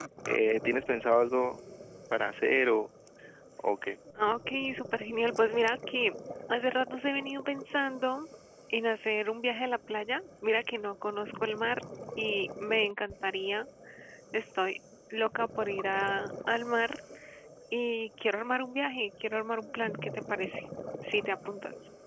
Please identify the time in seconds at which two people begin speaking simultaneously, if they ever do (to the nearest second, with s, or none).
none